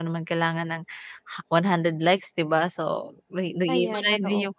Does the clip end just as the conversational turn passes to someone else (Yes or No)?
No